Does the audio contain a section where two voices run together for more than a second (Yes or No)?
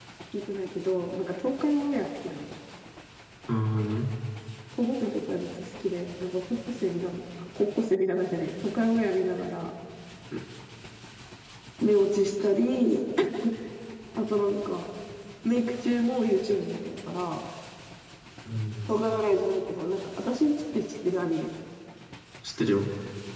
No